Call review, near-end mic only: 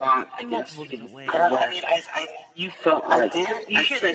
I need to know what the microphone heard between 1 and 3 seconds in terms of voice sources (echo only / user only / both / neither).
both